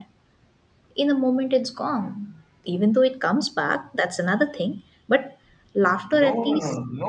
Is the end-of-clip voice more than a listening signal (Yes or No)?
Yes